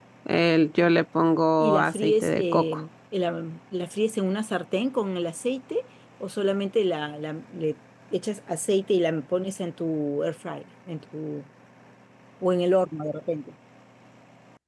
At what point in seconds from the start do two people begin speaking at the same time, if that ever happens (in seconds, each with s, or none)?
1.6 s